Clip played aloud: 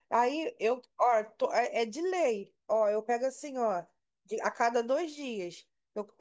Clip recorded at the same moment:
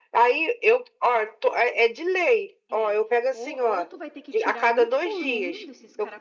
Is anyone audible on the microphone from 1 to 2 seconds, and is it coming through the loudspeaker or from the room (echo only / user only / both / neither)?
echo only